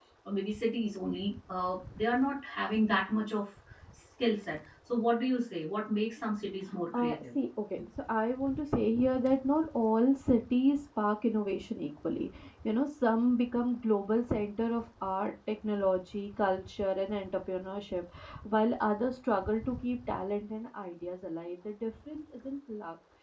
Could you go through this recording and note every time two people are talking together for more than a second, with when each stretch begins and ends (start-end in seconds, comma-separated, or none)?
none